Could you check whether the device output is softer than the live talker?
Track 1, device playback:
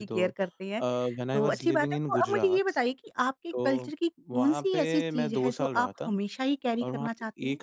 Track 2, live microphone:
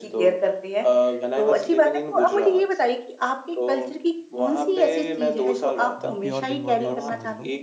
No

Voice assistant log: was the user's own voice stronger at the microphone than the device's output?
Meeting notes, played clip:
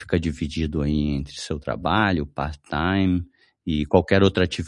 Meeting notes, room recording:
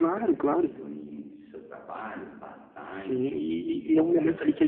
Yes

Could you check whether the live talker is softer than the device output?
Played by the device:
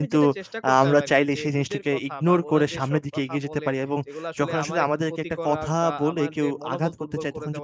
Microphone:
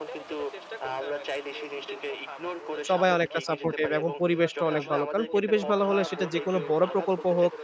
No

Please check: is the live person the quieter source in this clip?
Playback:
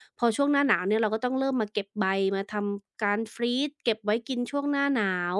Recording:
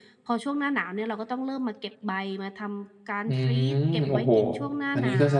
No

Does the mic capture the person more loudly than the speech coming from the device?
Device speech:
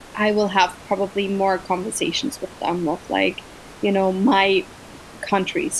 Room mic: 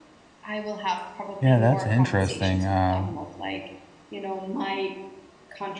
Yes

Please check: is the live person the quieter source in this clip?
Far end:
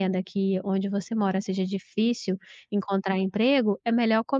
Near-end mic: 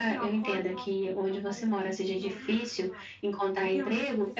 Yes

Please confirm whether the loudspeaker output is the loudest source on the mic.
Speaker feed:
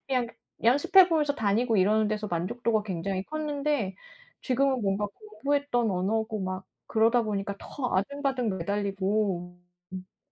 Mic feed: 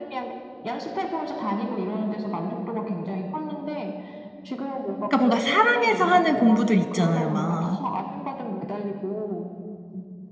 No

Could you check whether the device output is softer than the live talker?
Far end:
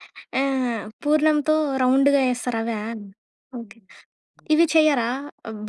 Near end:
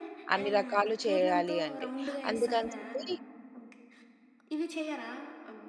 Yes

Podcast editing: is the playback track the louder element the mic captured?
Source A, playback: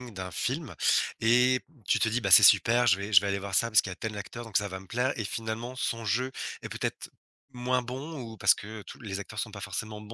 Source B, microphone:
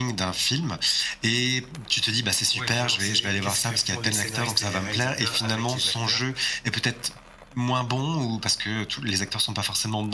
Yes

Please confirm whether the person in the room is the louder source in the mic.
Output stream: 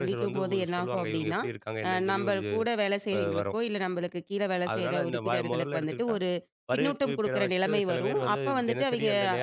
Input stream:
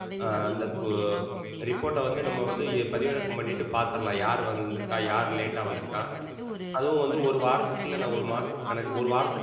Yes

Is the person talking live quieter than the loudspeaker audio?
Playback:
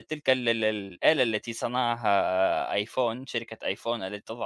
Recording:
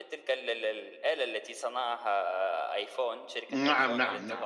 No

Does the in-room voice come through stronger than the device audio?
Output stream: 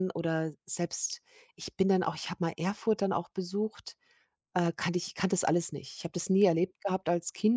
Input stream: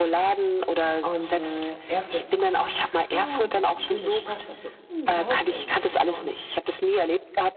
No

